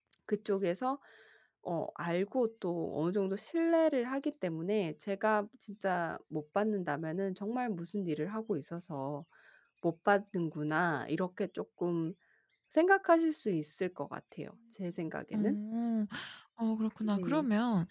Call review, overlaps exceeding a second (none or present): none